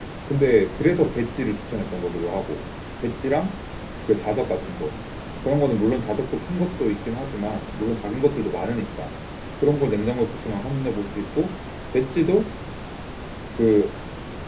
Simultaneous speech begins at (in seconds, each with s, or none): none